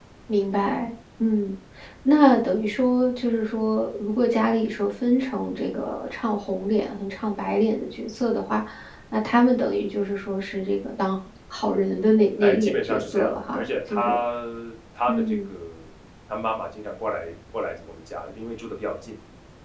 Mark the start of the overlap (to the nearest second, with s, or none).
12 s